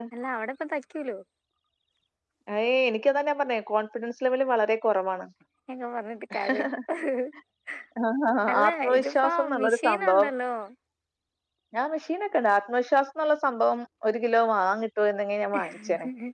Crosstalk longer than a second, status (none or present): present